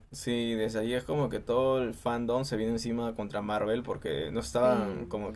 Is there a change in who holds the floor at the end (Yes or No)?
No